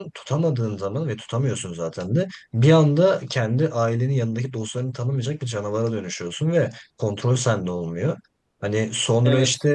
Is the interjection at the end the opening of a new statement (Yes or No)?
No